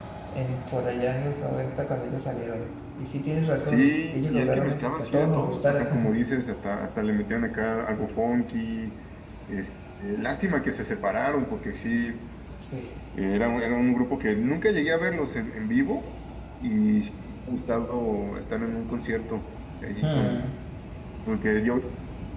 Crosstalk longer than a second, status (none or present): present